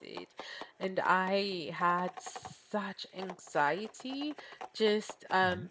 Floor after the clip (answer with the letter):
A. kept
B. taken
A